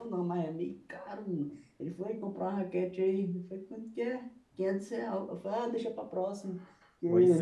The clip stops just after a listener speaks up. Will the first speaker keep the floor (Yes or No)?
No